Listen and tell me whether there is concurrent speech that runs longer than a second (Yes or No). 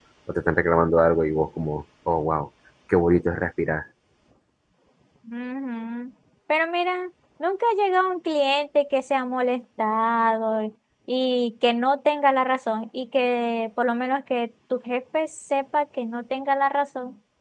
No